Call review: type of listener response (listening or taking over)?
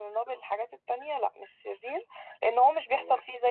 listening